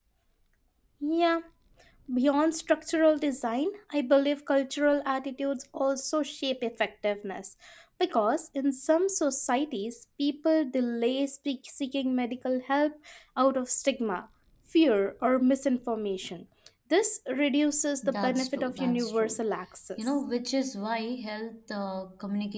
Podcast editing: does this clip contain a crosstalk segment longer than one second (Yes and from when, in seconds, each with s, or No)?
Yes, from 18.0 s